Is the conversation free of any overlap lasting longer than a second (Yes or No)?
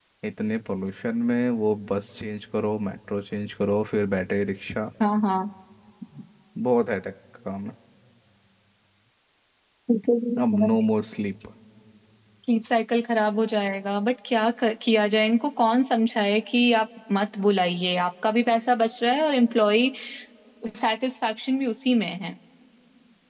Yes